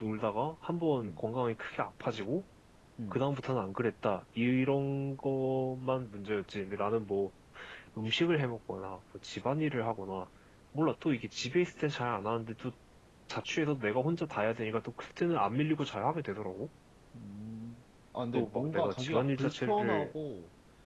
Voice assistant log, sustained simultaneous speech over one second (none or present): present